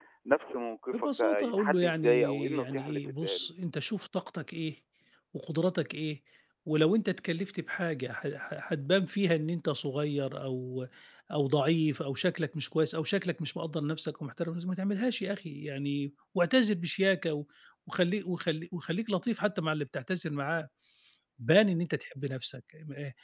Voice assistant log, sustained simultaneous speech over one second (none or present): present